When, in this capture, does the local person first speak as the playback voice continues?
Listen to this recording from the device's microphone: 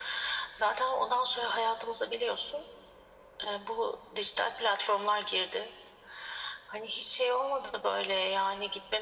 none

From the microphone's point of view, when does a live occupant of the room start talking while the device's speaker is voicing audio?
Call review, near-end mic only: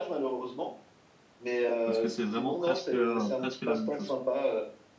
2 s

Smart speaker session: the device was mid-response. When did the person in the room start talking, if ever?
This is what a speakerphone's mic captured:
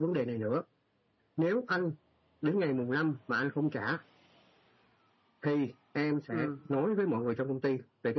6 s

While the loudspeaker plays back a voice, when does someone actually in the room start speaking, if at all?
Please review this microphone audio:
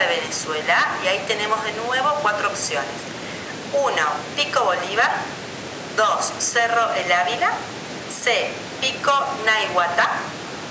none

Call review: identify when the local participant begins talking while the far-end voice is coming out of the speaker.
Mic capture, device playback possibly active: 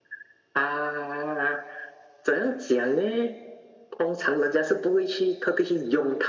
none

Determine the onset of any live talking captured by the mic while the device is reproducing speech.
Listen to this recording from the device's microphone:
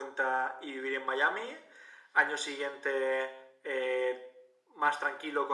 none

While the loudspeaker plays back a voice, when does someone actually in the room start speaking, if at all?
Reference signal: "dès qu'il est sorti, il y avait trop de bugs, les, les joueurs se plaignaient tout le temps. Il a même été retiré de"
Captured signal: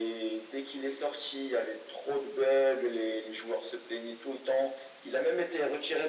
none

